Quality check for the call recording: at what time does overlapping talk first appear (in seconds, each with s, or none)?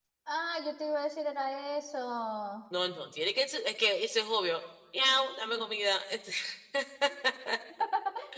none